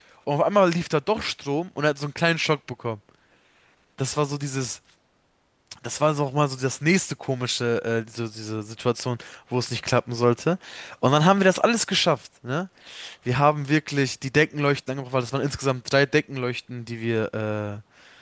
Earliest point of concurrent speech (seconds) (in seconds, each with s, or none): none